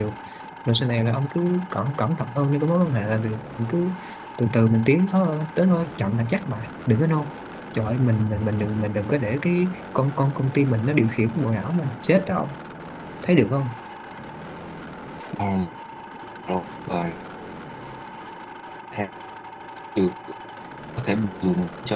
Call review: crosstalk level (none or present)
none